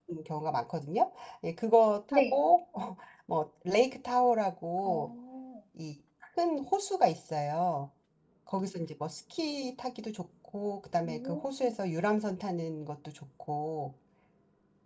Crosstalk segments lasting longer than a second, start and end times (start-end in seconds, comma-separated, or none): none